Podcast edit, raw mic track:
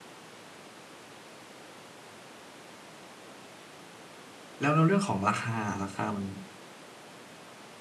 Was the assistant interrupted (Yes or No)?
Yes